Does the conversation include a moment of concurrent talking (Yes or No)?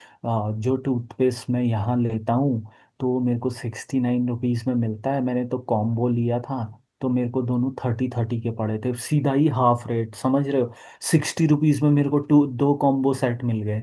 No